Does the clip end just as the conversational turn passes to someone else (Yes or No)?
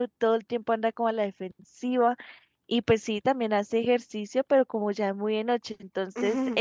No